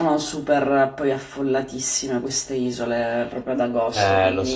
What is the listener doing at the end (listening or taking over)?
taking over